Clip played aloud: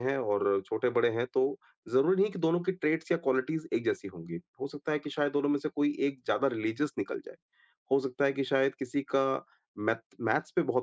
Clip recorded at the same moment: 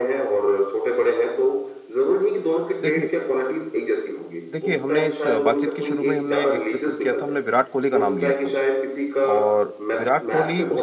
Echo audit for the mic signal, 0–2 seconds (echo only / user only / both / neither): echo only